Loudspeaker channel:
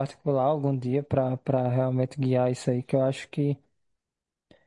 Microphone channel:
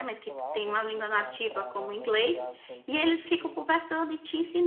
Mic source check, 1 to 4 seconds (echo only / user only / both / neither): both